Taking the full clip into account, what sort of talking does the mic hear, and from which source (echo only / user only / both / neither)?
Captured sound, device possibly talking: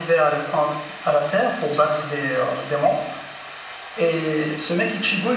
echo only